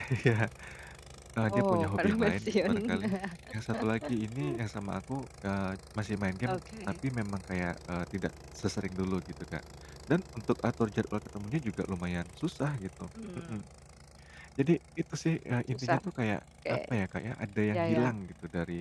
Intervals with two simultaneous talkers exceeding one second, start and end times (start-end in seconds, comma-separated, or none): 1.5-3.0